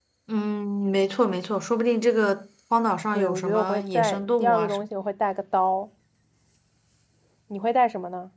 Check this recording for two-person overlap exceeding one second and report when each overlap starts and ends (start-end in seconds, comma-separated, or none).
3.1-4.8